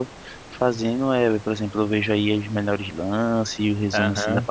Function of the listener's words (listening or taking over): taking over